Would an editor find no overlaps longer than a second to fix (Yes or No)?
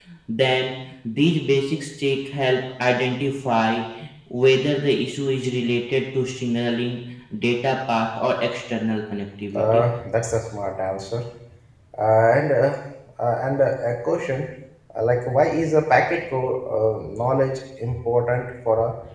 Yes